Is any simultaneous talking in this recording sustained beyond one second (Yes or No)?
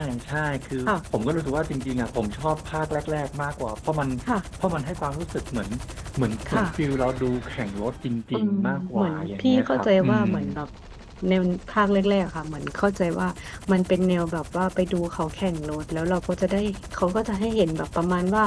Yes